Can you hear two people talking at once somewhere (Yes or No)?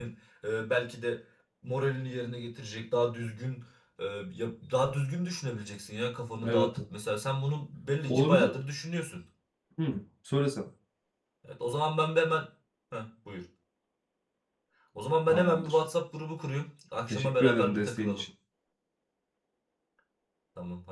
Yes